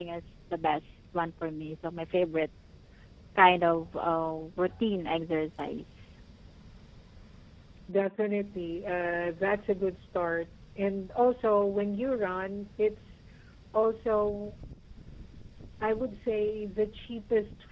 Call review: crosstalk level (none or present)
none